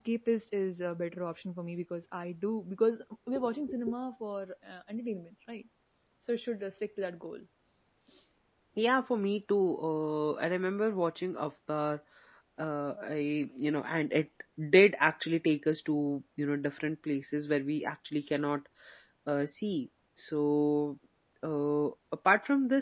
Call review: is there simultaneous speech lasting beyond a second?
No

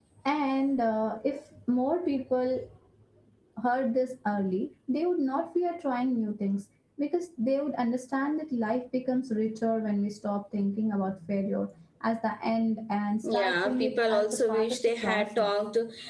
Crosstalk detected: Yes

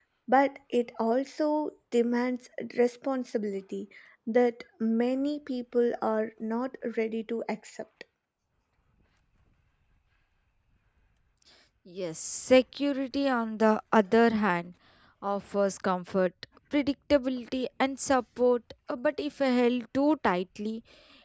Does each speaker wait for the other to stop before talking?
Yes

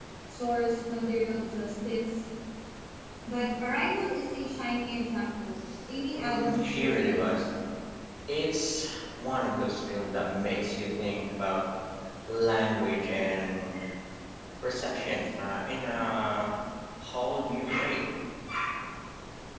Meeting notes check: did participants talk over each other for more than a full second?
Yes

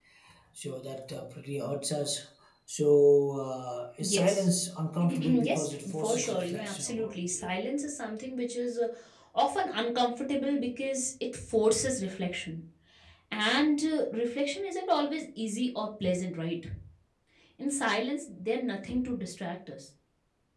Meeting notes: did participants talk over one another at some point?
Yes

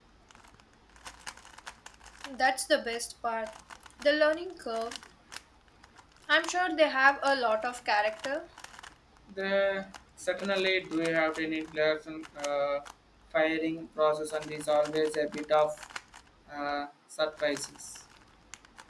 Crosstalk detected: No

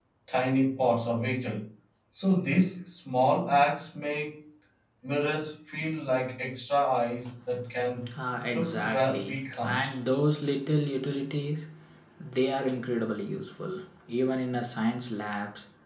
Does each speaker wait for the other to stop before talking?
No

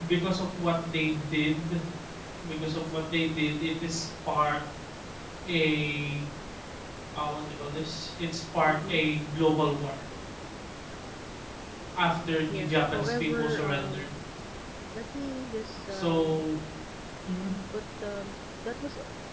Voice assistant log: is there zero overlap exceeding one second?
No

